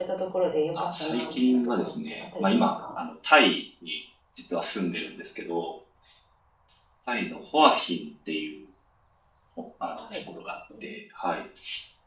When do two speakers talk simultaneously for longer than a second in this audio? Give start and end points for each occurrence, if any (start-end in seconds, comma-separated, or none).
0.8-2.8